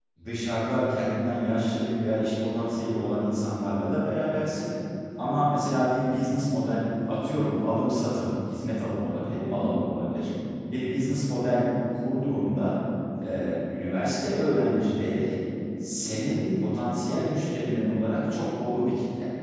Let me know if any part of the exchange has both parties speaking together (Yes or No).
No